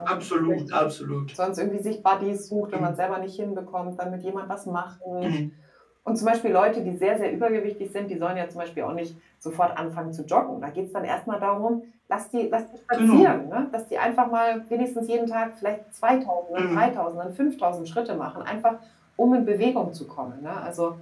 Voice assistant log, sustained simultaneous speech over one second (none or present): none